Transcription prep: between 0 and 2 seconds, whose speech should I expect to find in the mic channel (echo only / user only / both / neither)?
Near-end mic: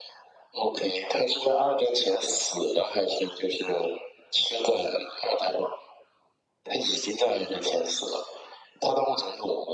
echo only